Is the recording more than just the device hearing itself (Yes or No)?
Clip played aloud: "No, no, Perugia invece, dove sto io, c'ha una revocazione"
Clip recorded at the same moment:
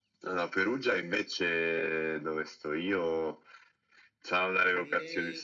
Yes